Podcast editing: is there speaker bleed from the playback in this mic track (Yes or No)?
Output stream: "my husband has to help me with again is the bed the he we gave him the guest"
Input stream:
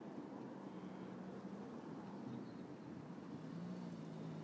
No